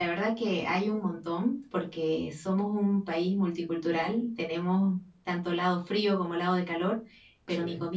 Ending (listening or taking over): listening